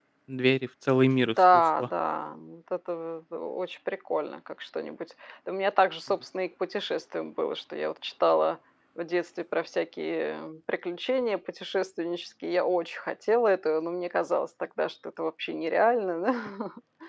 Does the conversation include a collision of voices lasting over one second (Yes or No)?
No